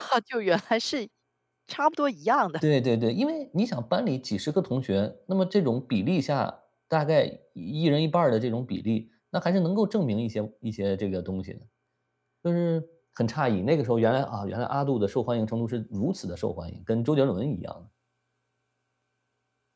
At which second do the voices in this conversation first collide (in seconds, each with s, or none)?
none